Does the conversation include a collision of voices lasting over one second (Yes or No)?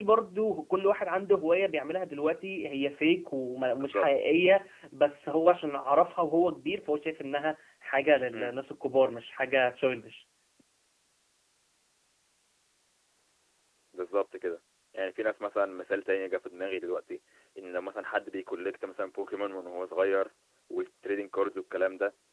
No